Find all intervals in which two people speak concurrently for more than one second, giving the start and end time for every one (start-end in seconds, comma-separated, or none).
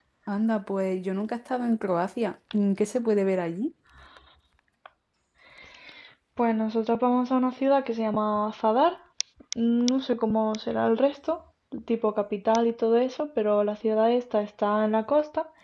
none